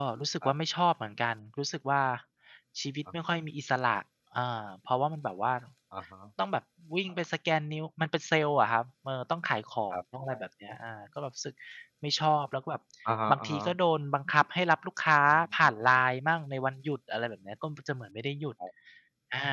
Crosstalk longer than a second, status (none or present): none